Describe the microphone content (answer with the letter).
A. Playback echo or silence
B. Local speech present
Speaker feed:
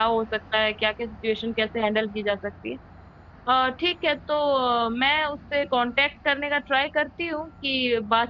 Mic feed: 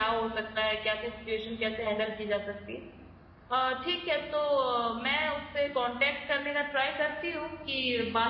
A